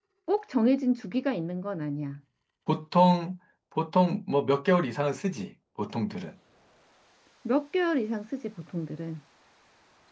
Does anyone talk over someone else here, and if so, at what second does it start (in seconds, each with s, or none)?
none